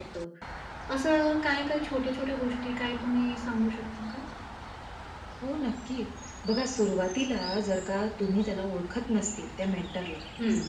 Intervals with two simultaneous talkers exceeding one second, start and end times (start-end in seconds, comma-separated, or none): none